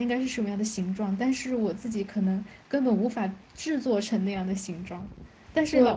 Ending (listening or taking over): listening